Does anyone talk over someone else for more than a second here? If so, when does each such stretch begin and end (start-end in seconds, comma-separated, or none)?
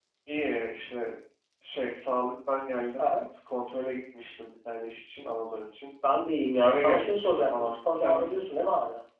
6.6-8.5